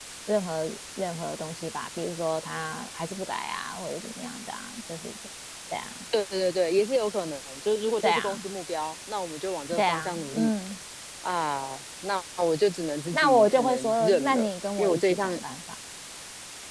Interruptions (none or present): present